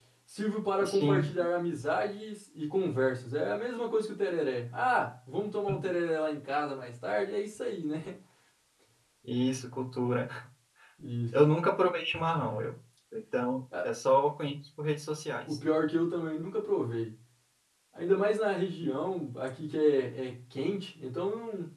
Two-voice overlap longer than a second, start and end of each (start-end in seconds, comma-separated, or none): none